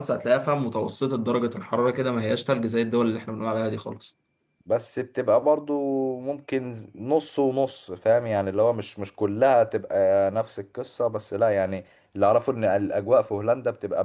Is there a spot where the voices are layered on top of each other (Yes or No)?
No